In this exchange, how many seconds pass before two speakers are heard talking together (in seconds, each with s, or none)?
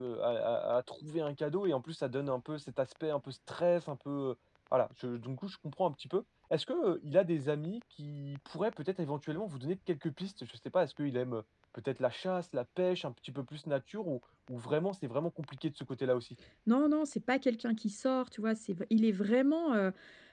none